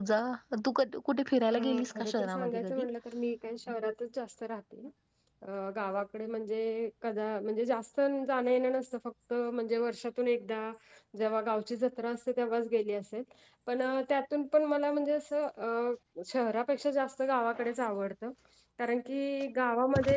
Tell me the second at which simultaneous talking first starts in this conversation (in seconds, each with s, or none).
1.5 s